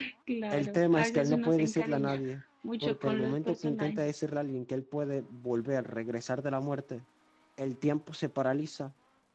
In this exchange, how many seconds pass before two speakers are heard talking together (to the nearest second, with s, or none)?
1 s